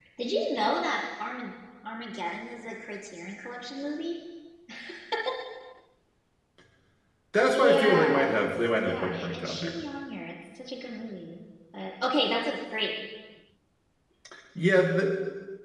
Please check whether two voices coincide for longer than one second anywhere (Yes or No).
Yes